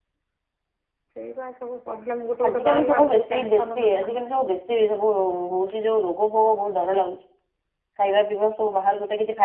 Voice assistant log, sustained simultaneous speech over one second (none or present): present